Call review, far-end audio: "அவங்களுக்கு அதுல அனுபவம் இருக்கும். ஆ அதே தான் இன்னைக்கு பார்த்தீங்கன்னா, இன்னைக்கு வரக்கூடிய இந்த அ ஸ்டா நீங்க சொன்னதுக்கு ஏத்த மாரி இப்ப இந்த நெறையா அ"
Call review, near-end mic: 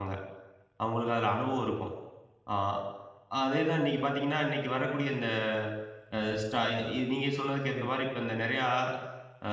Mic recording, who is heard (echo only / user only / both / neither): both